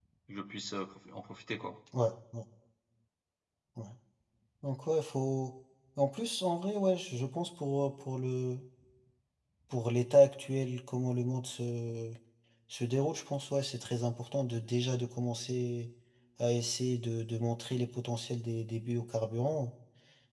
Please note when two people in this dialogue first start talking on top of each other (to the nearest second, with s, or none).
none